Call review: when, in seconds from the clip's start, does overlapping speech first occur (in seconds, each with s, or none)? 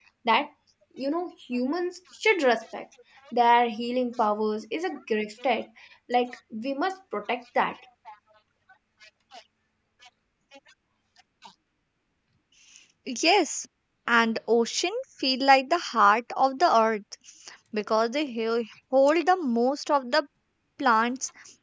none